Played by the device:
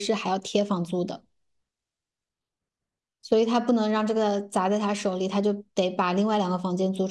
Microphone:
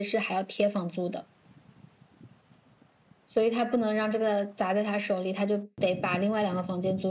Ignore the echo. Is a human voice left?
No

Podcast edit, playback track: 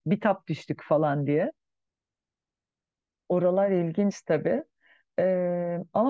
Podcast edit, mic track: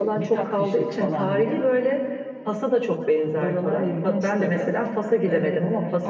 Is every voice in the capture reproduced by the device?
No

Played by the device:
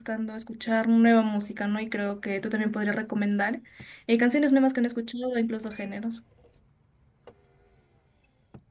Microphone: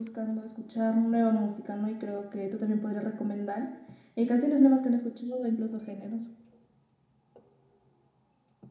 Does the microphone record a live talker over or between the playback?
No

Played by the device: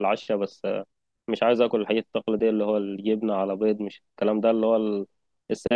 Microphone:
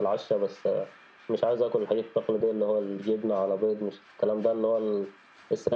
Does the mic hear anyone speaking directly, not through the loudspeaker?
No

